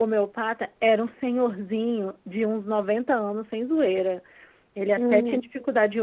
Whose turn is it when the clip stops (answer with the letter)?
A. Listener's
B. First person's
B